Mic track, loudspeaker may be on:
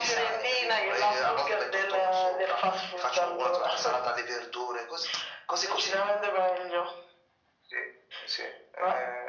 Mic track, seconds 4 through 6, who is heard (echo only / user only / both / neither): echo only